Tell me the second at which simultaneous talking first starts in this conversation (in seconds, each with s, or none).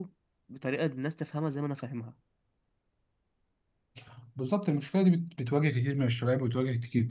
none